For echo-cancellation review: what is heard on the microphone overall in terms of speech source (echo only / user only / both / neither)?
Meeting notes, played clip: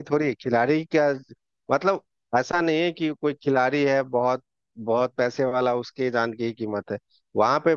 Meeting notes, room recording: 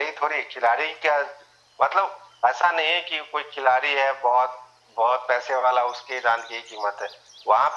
echo only